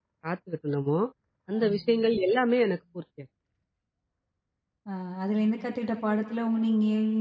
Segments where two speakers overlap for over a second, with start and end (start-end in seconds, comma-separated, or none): none